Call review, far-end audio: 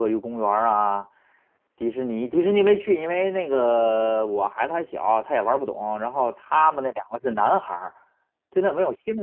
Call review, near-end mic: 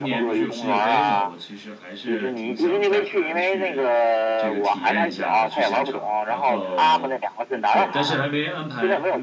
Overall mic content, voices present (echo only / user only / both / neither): both